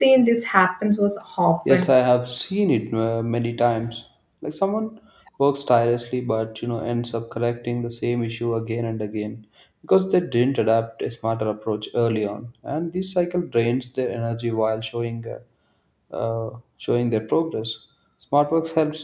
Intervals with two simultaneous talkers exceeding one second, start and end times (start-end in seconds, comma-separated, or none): none